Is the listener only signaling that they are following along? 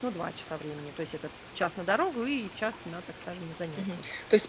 No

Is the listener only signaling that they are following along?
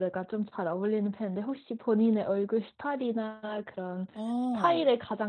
Yes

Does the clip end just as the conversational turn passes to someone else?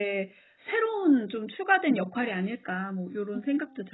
Yes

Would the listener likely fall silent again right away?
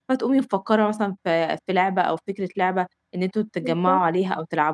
Yes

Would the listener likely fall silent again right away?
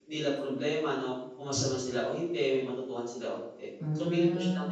Yes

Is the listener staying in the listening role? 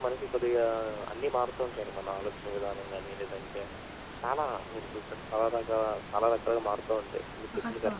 No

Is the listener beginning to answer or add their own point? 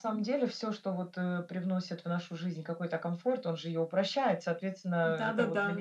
Yes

